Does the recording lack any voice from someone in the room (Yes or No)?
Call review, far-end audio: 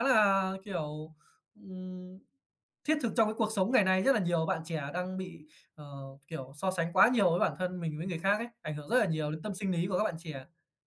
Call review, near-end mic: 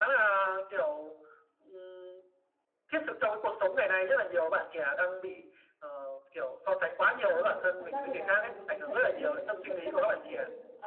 No